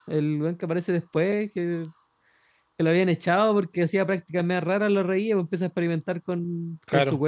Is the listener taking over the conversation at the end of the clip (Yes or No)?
No